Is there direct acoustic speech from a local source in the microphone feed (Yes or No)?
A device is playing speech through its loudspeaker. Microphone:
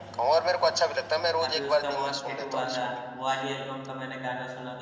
Yes